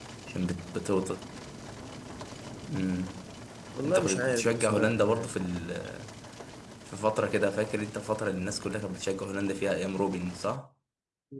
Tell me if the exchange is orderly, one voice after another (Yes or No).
No